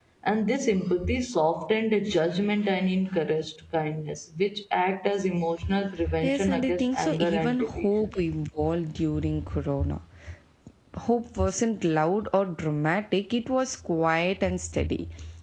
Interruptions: present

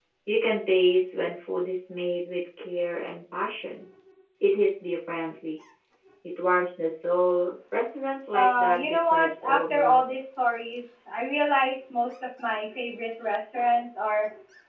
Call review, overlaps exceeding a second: present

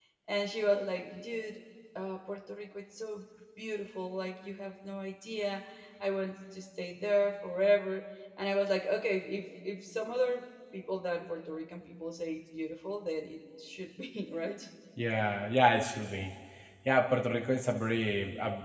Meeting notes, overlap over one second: none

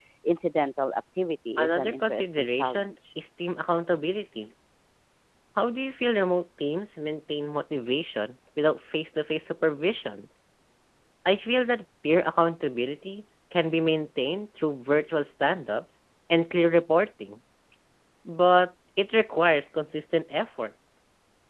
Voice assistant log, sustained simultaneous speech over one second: present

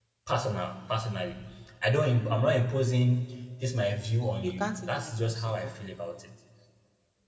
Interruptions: present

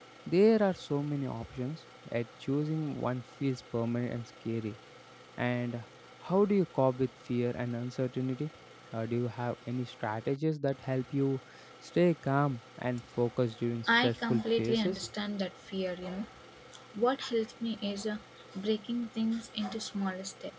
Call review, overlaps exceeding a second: present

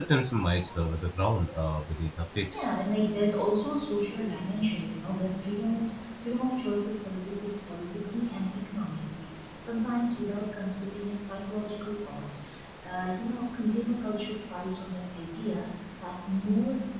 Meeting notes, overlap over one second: none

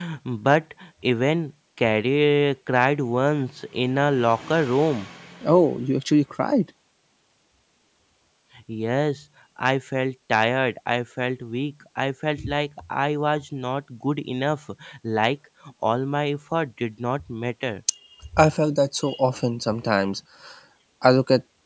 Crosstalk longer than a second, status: none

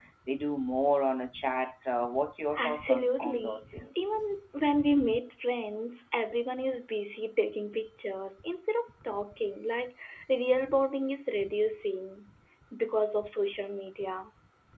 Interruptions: present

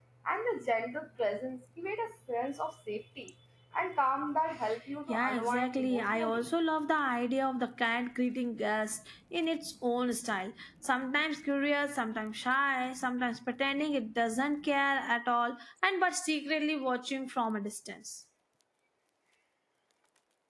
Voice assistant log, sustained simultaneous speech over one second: present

